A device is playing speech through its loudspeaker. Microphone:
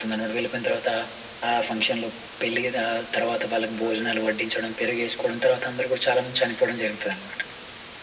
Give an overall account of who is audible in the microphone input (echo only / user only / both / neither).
echo only